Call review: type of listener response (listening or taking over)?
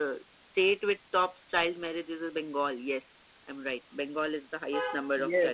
taking over